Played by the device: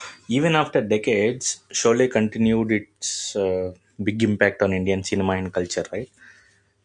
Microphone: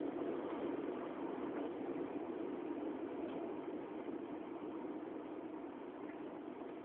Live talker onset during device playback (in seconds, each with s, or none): none